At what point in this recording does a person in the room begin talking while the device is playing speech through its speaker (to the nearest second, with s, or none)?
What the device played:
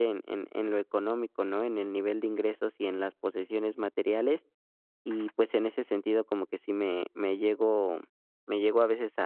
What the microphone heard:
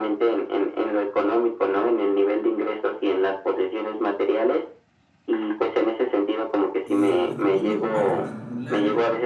7 s